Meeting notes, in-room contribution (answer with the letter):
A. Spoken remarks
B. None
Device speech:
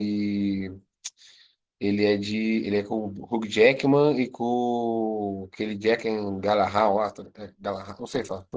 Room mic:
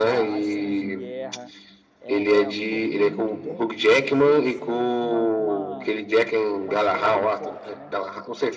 A